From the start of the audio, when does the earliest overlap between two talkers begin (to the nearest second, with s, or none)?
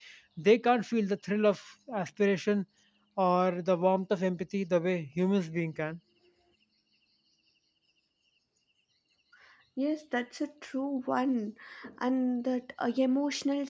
none